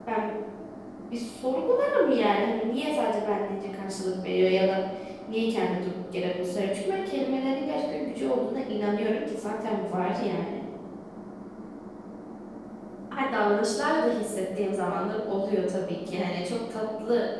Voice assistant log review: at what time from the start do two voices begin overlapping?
none

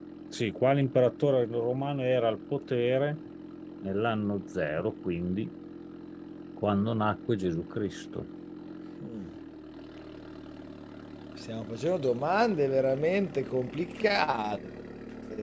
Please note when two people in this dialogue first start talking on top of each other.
none

